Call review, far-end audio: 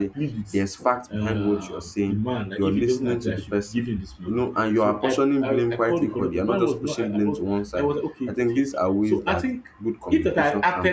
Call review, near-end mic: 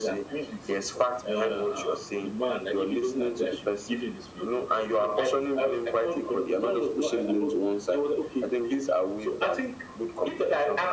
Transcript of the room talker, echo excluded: none

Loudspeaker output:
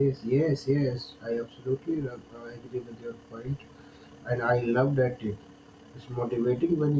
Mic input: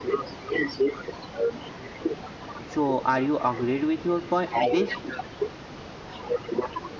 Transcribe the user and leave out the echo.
so are you agreed with your point this

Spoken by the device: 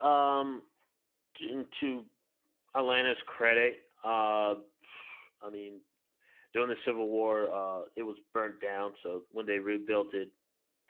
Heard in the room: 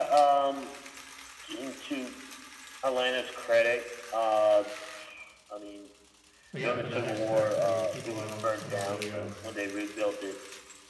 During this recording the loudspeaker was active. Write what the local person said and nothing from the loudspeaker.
but yeah, for that aspect, at least people, I don't, I don't really, uh,

